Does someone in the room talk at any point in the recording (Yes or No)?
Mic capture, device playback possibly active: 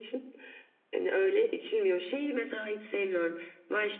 No